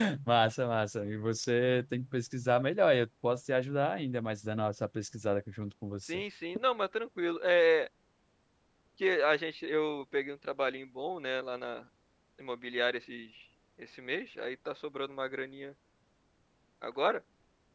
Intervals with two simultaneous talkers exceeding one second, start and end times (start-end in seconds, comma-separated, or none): none